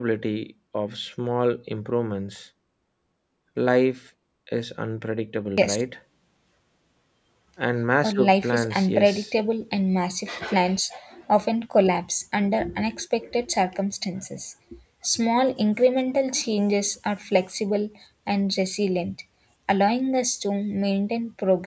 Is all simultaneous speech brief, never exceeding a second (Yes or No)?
No